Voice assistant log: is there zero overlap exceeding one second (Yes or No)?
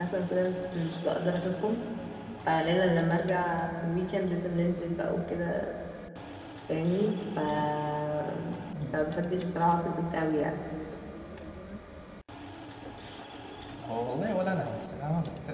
Yes